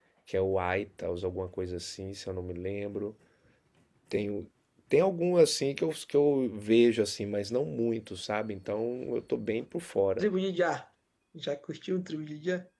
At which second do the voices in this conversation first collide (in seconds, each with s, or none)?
none